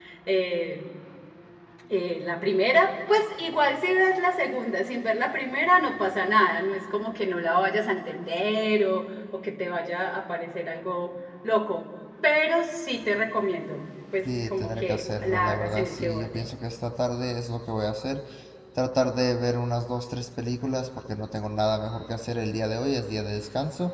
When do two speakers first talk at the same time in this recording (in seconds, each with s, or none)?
14.2 s